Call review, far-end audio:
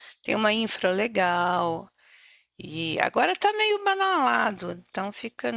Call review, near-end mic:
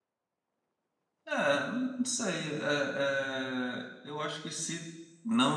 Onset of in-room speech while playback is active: 1.2 s

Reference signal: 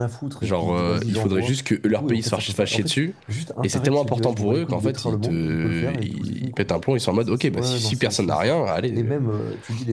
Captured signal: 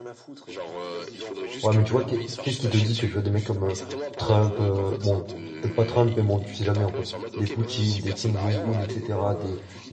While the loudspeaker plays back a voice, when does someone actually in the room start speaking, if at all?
1.6 s

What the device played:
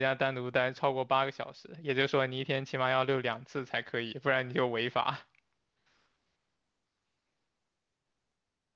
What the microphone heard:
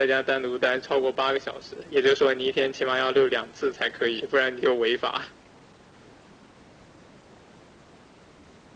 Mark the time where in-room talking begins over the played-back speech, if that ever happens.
none

